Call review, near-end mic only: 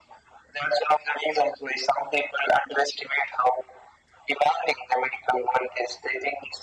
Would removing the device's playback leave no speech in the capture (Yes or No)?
Yes